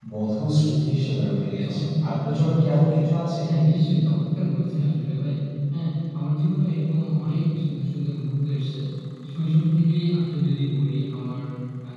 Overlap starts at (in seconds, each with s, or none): 1.6 s